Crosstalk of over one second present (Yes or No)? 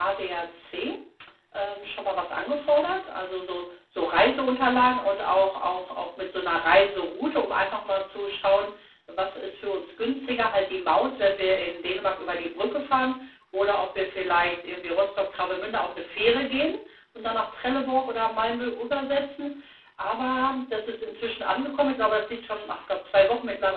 No